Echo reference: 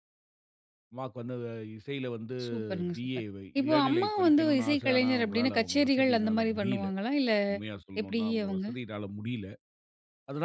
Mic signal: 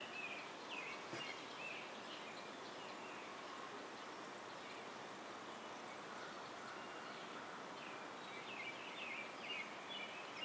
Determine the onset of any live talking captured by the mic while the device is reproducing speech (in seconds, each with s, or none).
none